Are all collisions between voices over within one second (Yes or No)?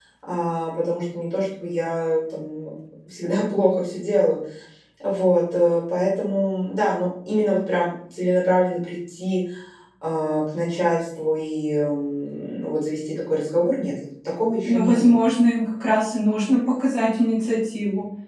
Yes